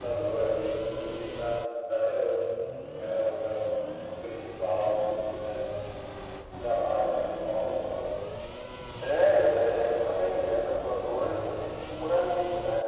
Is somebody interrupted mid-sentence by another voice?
No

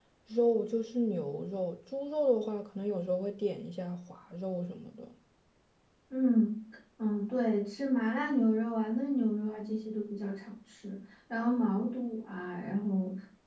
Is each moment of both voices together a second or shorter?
Yes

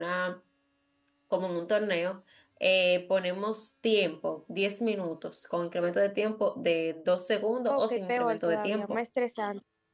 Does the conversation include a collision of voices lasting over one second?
Yes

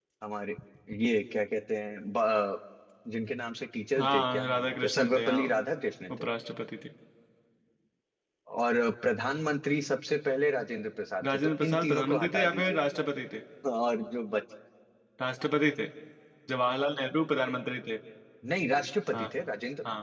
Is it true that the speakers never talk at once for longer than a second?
No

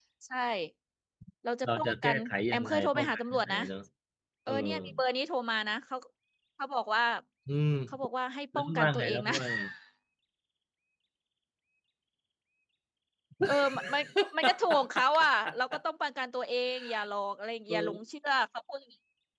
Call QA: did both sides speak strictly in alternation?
No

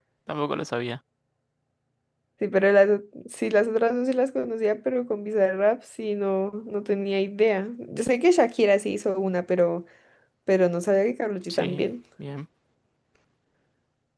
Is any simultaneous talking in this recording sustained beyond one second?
No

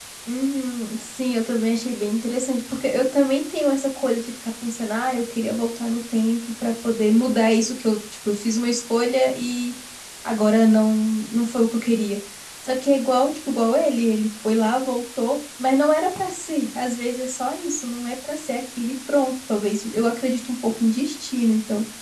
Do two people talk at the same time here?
No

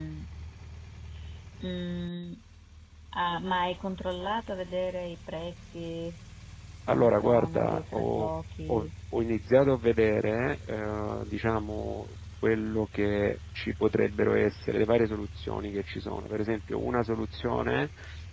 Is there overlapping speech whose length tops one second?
Yes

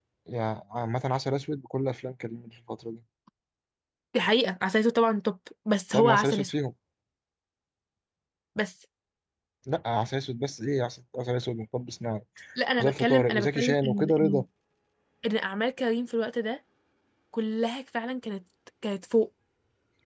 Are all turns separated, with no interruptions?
No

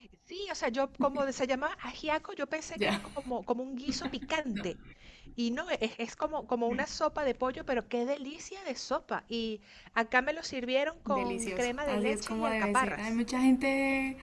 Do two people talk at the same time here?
Yes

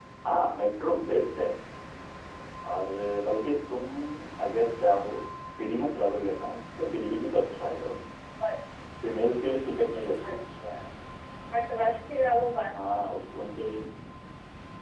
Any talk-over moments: No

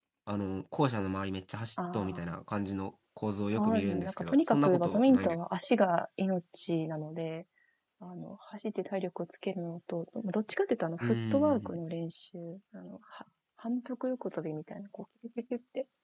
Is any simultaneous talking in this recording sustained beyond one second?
Yes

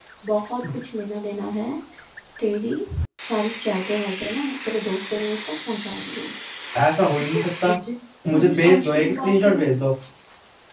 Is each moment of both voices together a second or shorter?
No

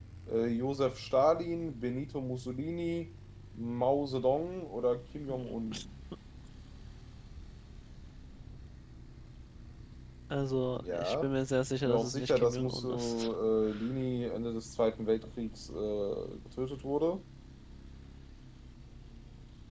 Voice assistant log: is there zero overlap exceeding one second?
No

